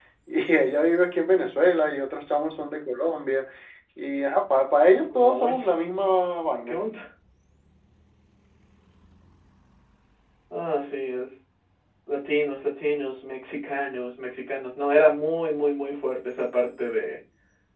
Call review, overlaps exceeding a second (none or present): none